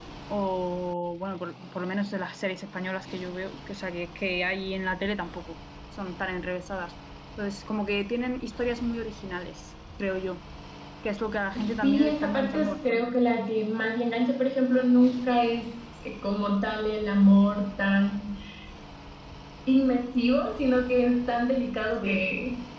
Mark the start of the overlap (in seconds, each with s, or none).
11.8 s